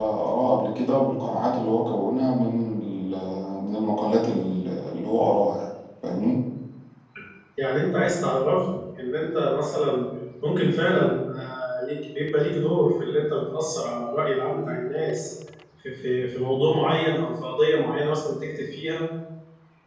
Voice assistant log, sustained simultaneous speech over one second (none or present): none